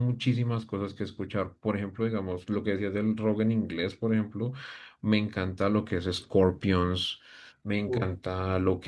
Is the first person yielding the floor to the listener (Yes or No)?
No